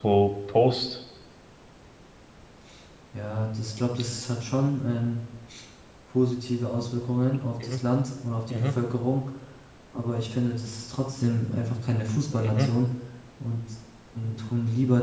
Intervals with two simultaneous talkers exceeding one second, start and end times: none

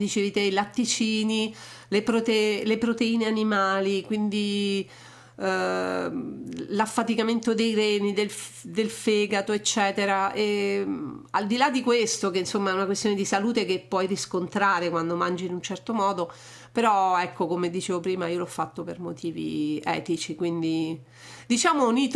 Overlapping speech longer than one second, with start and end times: none

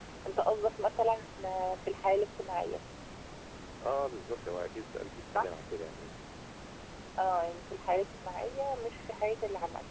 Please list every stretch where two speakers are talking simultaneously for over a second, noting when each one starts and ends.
none

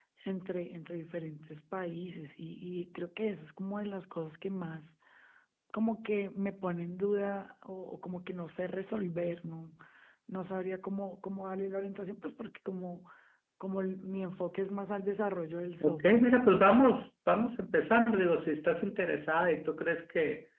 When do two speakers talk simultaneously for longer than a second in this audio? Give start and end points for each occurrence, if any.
none

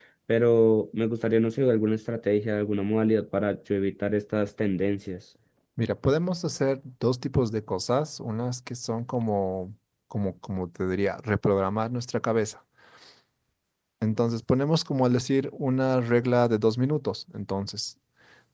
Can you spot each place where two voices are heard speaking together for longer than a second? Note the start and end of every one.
none

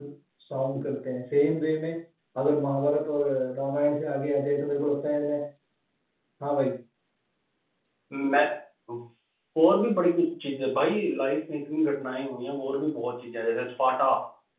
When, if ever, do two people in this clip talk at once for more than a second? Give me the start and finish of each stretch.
none

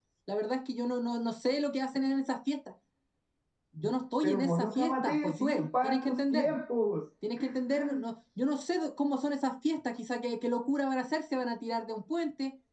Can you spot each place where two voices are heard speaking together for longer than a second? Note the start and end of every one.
4.2-6.5

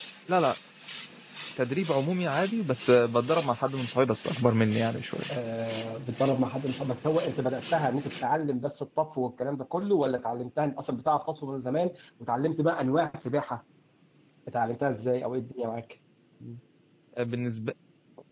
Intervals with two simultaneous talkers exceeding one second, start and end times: none

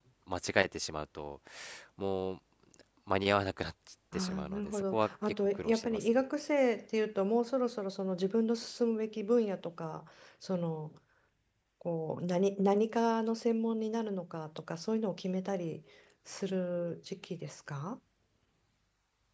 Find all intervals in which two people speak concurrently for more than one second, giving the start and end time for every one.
4.1-6.2

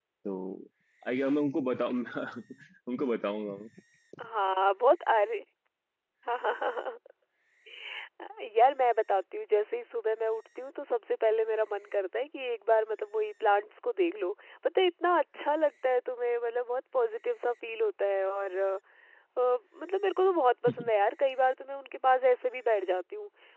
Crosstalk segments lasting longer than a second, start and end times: none

